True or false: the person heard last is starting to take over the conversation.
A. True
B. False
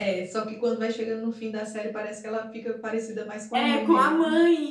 A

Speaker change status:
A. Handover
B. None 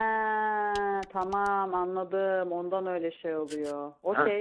A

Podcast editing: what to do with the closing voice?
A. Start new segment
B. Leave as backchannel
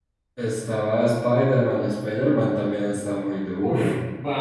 A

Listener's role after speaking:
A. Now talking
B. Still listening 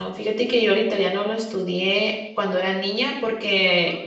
B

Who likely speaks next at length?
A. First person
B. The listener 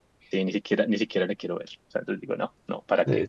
B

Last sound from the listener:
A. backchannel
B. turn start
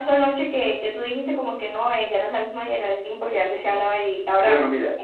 B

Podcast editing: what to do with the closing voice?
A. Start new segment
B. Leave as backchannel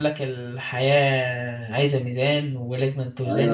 A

